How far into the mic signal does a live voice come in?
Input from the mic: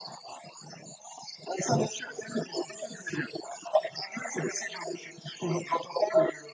none

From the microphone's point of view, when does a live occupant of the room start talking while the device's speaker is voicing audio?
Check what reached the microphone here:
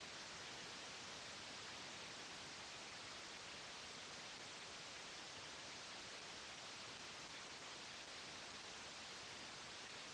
none

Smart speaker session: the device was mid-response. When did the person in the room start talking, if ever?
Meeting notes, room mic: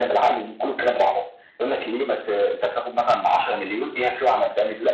none

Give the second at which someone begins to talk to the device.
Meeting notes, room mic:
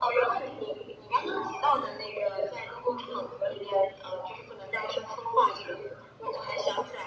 none

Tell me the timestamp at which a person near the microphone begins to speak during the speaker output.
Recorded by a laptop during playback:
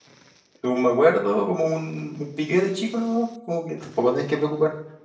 0.6 s

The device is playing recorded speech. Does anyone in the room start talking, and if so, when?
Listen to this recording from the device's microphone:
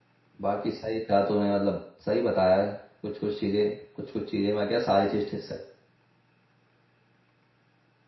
0.4 s

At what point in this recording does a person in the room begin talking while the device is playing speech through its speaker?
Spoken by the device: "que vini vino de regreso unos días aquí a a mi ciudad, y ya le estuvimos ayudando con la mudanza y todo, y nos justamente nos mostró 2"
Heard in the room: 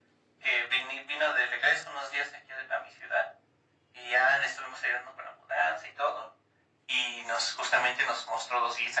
none

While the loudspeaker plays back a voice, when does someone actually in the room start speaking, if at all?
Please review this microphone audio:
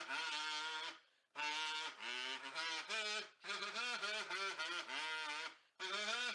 none

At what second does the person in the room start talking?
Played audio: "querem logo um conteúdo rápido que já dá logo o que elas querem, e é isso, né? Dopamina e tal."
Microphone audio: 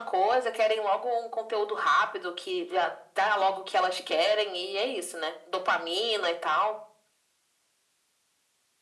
none

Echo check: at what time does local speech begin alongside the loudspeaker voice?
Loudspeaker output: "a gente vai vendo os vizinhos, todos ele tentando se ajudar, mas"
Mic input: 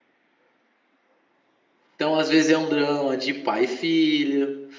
1.9 s

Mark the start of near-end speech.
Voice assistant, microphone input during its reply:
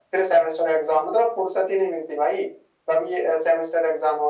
none

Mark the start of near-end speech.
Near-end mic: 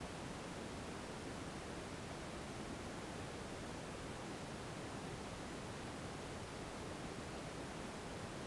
none

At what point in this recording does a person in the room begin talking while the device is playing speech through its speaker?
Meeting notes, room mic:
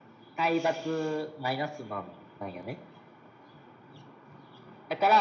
none

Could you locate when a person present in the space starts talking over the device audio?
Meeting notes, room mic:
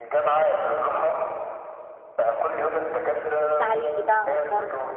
3.4 s

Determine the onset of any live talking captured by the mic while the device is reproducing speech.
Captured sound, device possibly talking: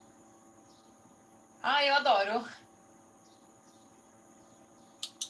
1.6 s

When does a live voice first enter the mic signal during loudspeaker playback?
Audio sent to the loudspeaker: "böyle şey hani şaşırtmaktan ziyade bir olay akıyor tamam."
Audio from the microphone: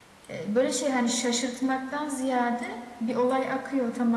none

